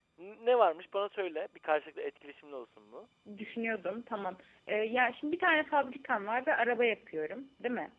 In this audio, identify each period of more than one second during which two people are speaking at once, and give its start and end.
none

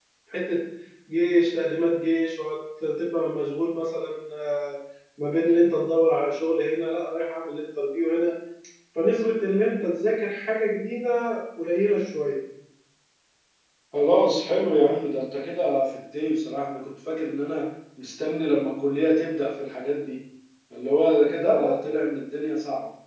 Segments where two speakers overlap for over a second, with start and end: none

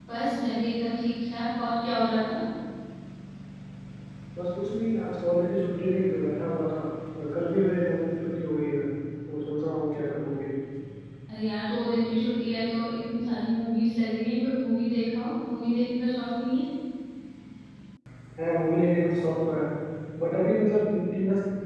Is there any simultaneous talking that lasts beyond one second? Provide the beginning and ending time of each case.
none

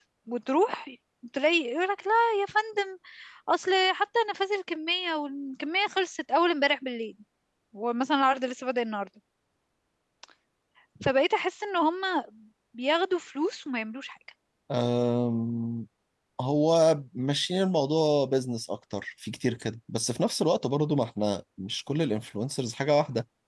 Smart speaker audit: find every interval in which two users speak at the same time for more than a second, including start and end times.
none

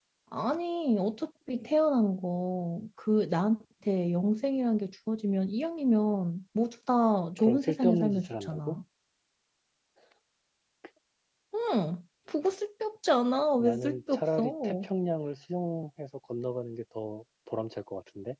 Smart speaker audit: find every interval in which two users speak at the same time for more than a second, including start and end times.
7.4-8.8, 13.6-14.9

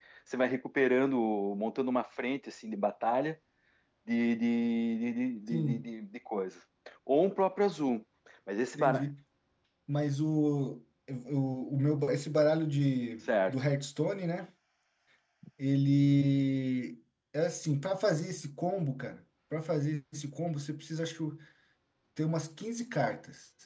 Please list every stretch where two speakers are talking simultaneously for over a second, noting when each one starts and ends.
none

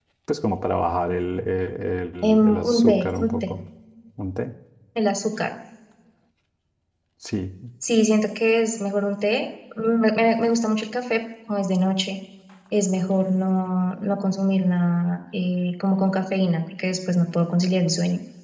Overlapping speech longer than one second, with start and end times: 2.3-3.5

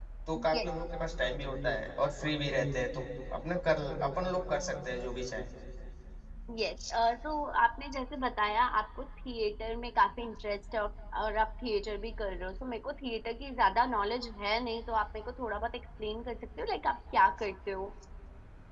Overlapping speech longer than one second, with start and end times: none

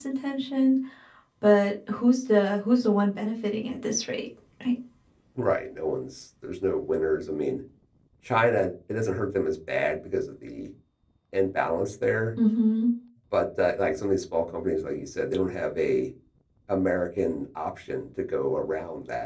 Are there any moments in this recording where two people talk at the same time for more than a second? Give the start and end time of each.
none

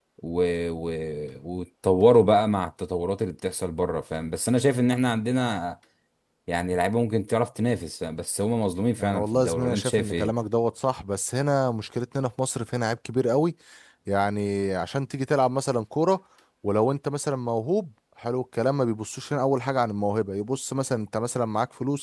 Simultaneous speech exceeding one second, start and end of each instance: 9.0-10.3

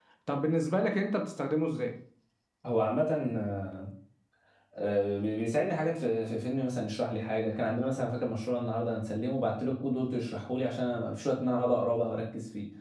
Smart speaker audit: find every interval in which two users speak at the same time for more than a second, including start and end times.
none

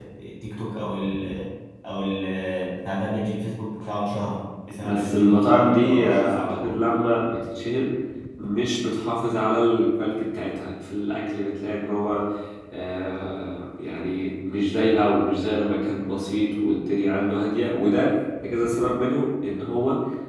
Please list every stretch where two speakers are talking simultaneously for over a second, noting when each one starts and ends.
4.8-6.8

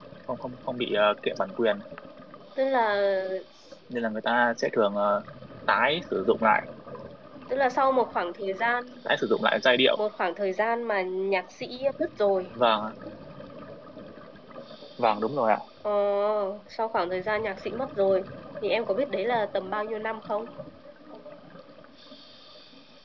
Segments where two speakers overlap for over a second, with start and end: none

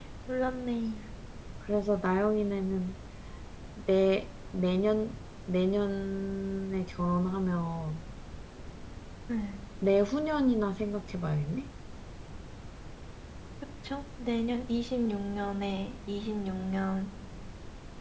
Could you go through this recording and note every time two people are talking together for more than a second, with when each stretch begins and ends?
none

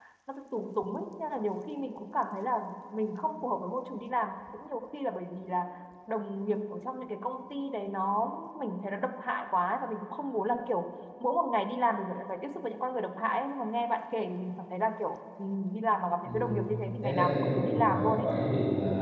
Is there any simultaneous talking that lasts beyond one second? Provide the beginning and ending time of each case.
17.0-18.3

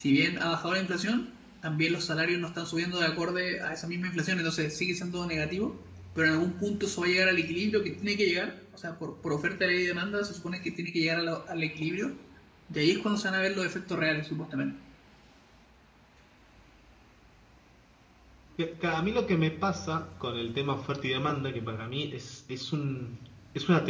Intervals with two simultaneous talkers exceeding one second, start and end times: none

